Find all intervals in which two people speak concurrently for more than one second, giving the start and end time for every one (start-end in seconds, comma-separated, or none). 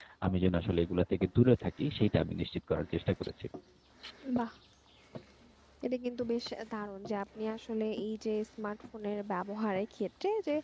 none